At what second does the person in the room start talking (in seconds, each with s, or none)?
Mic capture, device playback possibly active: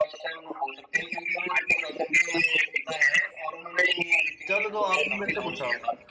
4.5 s